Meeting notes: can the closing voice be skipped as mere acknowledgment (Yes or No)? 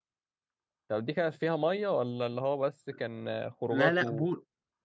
No